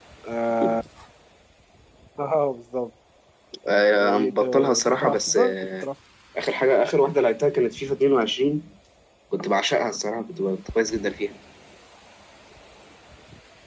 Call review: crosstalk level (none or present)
present